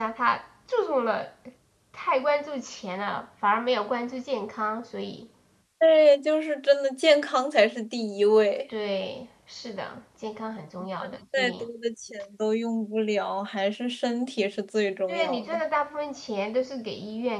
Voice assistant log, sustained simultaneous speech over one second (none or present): none